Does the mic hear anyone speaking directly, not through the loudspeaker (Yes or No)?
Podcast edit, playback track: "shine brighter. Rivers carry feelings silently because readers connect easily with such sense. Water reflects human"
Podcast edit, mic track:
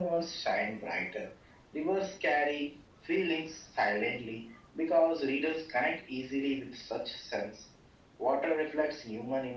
No